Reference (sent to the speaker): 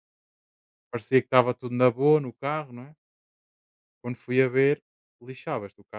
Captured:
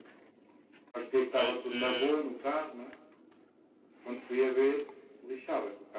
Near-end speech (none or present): present